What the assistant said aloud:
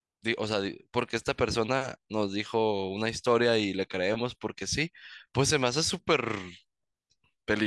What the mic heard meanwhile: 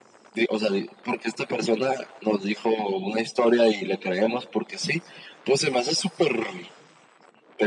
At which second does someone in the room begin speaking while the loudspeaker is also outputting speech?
none

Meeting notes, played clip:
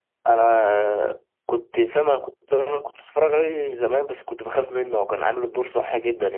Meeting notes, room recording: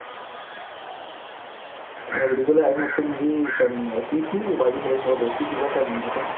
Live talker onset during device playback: 2.1 s

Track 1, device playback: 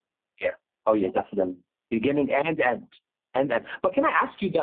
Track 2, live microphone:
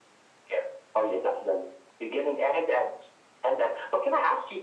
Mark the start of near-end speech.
none

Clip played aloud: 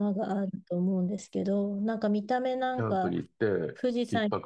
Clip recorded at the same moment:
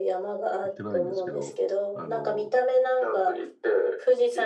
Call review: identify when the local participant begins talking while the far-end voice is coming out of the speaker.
0.6 s

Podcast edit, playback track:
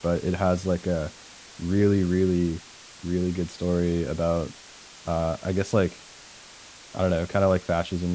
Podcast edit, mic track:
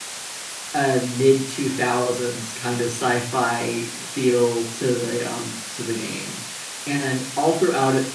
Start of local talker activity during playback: 0.7 s

